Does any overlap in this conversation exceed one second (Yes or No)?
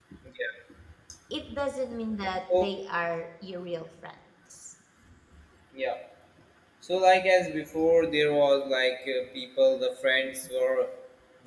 No